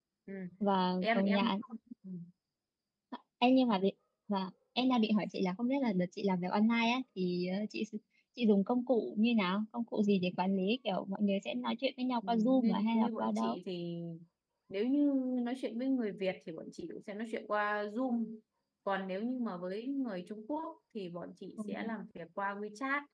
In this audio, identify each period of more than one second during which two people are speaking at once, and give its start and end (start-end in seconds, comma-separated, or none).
12.3-13.6